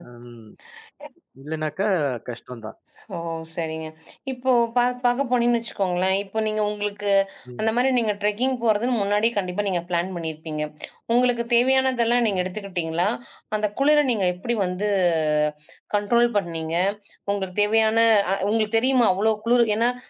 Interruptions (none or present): none